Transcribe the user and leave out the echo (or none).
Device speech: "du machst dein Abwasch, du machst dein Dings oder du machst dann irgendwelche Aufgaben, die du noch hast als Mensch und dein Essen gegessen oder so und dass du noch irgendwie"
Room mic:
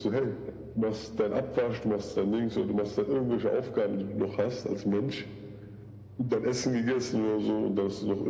none